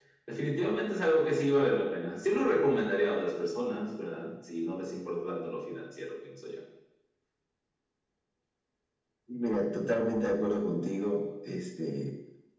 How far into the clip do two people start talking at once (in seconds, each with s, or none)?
none